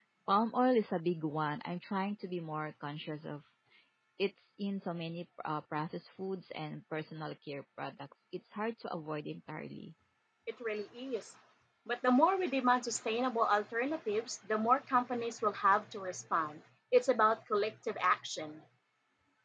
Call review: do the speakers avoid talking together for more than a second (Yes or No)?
Yes